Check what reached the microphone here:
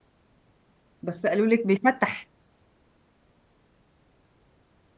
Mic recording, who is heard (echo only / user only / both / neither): user only